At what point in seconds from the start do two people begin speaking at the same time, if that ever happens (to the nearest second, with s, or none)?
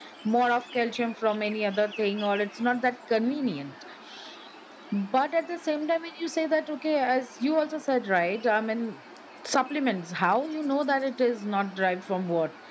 none